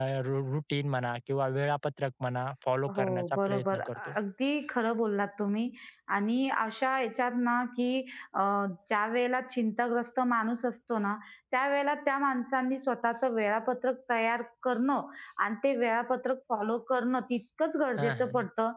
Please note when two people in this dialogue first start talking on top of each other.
3 s

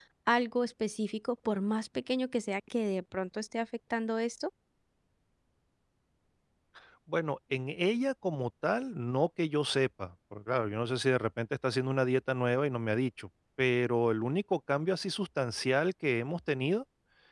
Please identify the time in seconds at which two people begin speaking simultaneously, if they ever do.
none

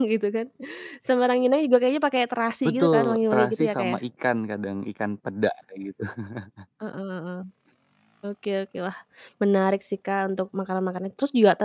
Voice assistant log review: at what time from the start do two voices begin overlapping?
3 s

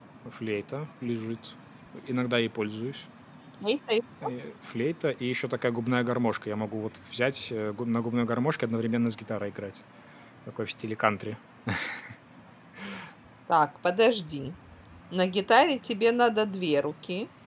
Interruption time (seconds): none

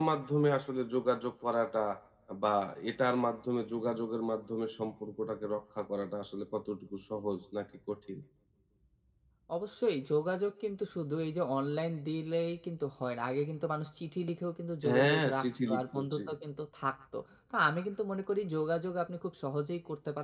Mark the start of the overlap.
15 s

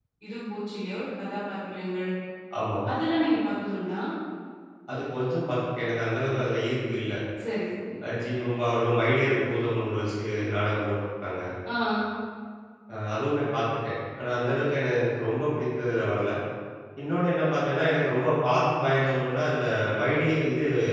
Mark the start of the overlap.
none

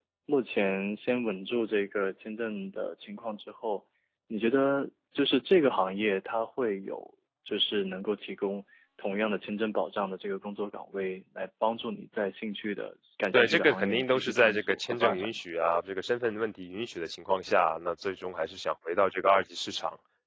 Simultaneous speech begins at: 13 s

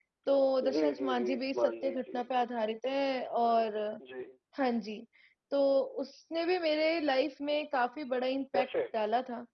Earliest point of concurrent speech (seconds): 1 s

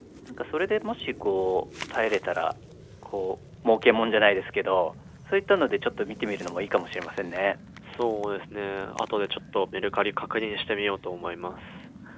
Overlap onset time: none

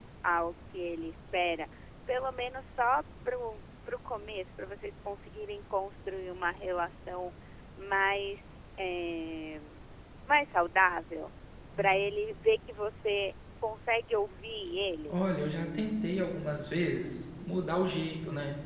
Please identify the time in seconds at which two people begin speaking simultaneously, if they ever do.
none

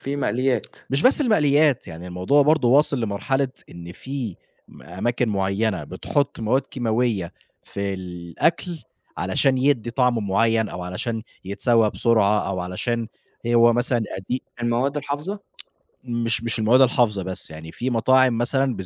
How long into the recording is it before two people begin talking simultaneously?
none

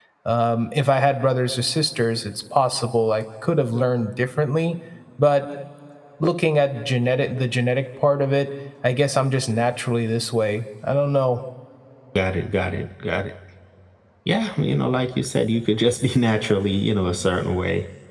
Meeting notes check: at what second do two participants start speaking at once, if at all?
none

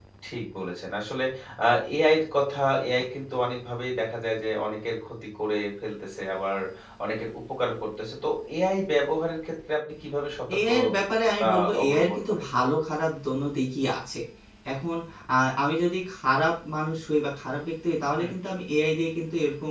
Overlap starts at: 10 s

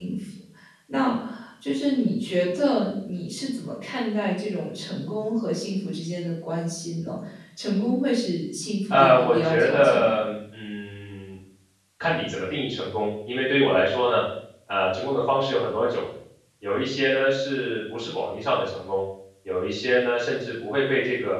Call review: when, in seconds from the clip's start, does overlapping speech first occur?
9 s

